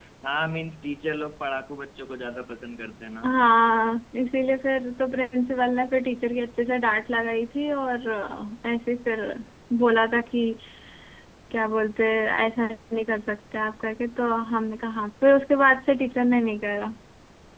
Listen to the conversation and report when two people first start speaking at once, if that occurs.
none

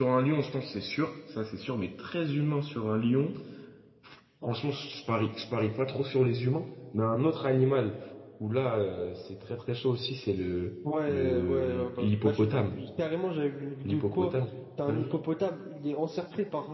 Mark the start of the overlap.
11.1 s

